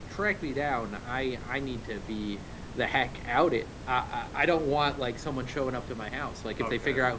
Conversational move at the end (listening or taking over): listening